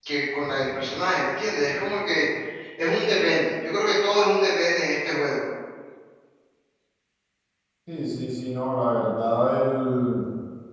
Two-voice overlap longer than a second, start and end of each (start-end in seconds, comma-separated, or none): none